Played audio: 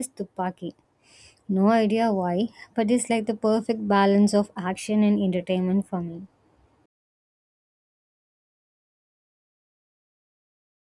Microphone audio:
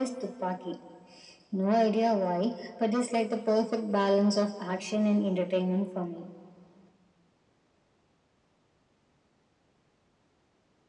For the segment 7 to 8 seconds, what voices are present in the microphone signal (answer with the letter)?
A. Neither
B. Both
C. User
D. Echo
A